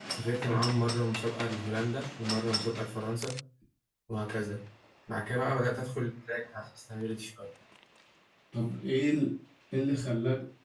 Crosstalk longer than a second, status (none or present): none